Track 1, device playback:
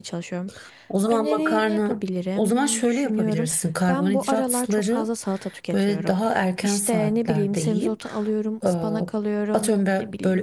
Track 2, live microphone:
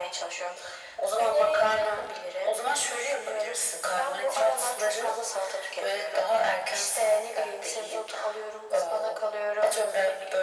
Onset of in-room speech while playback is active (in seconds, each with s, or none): none